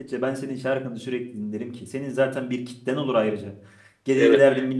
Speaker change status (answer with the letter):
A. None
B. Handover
A